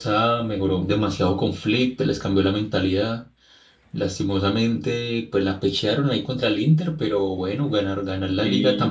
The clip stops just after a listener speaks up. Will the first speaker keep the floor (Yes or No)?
Yes